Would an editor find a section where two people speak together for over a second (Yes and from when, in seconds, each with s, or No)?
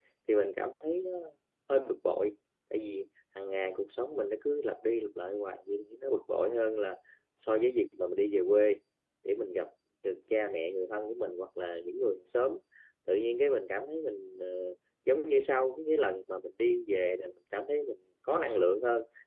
No